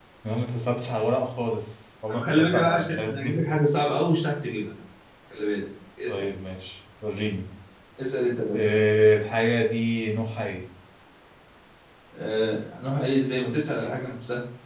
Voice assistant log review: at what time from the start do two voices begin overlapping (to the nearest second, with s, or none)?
2 s